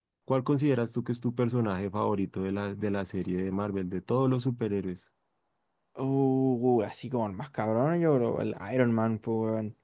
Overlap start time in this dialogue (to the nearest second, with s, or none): none